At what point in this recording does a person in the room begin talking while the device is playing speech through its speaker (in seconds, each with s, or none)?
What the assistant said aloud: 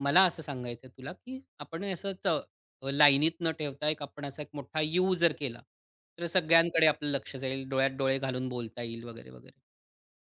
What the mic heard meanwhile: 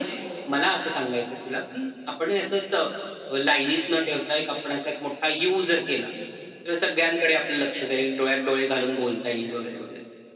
none